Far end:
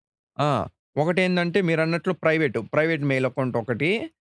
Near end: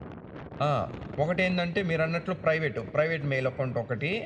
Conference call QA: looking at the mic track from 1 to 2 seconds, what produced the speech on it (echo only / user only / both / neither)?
echo only